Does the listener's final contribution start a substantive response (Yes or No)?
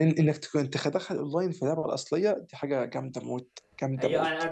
Yes